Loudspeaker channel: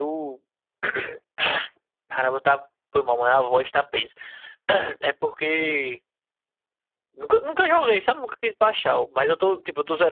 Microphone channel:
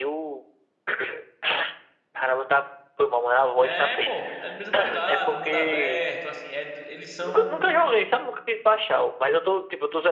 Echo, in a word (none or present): present